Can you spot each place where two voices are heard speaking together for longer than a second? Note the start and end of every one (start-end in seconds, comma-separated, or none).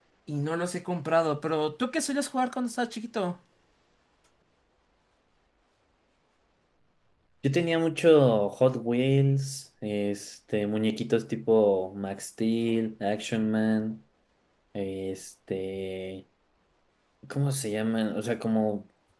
none